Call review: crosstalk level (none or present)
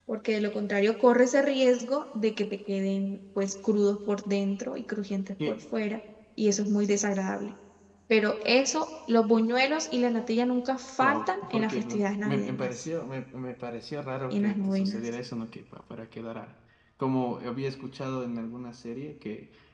present